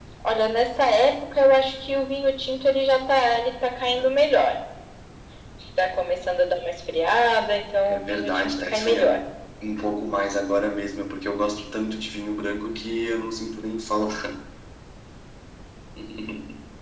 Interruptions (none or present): present